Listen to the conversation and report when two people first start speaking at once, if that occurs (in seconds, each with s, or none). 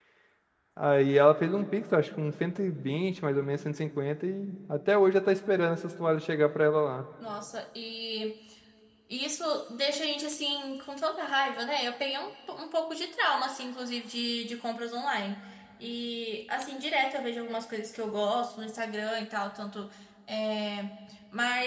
none